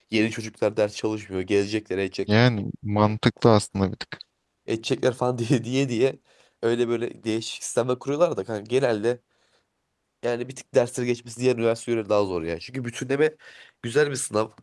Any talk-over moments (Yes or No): No